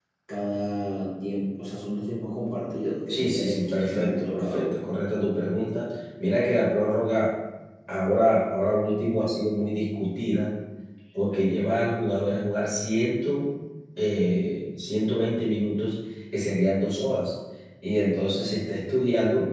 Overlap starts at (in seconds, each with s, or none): 3.1 s